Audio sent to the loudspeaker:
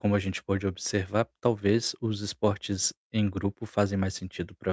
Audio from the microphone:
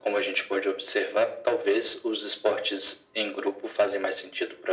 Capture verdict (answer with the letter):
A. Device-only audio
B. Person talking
A